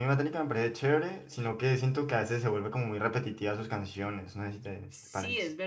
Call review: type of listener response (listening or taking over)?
taking over